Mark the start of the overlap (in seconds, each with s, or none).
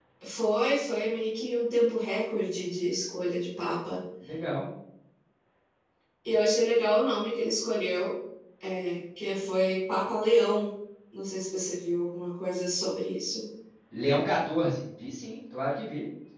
none